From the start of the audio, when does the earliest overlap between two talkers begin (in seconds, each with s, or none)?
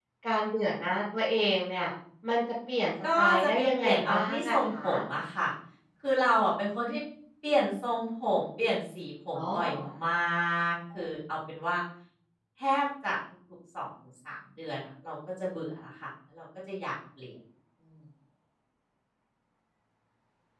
3.2 s